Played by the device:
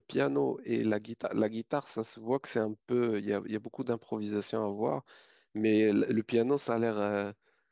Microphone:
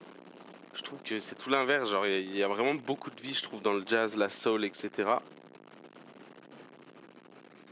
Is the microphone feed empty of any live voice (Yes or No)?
No